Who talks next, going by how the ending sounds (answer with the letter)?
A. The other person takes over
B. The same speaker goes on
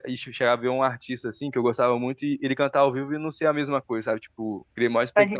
B